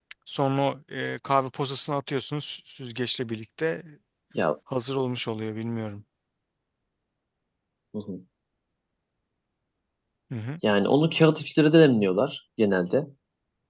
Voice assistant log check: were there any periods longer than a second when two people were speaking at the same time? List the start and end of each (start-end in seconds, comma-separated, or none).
none